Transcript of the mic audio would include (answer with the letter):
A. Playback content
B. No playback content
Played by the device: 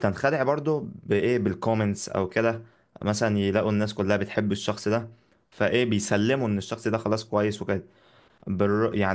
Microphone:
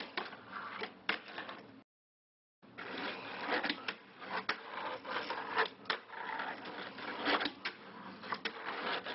B